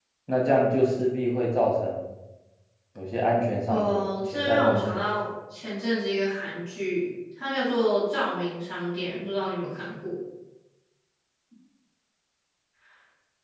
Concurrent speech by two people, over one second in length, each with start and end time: 3.7-5.0

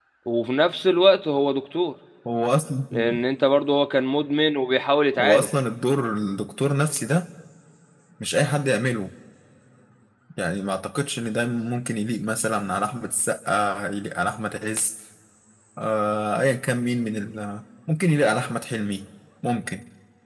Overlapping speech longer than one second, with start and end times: none

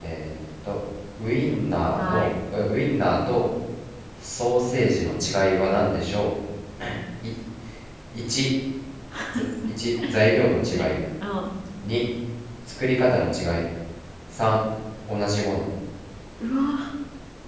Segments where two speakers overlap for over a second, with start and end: none

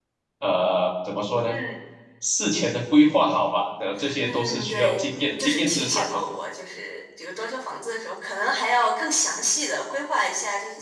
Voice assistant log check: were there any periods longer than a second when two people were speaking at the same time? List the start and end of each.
4.2-6.2

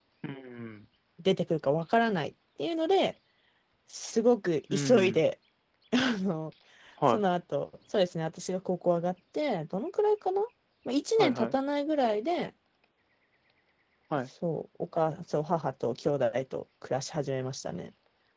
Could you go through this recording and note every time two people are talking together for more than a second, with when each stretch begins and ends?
none

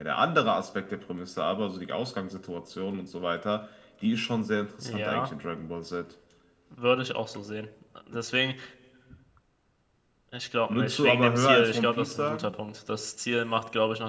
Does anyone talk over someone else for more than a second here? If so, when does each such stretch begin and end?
10.7-12.5

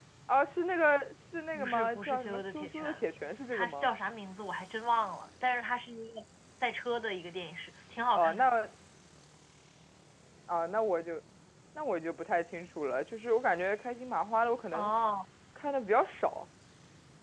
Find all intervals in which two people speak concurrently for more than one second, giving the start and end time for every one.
1.5-2.8

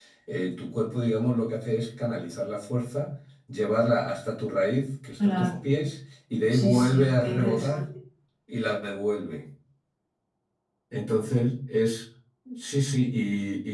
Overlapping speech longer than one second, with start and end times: 6.5-7.8

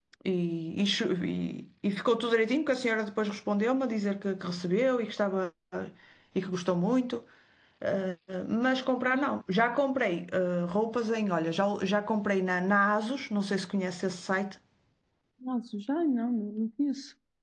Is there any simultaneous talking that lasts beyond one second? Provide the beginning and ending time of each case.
none

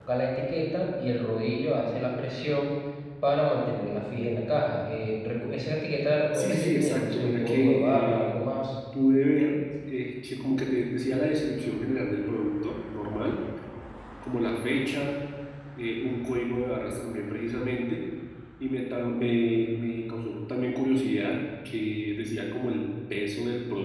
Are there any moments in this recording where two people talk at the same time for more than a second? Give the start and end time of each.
6.3-8.4

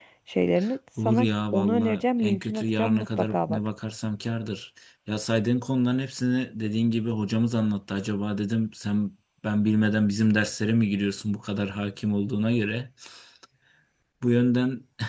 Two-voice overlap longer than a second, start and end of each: 1.0-3.6

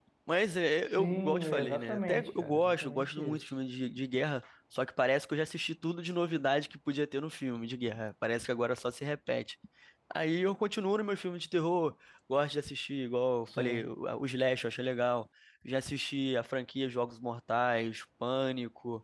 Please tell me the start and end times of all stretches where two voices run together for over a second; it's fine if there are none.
1.0-3.4

